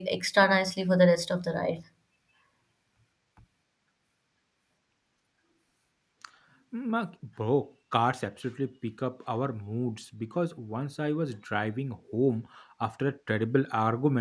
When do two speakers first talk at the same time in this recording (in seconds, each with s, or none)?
none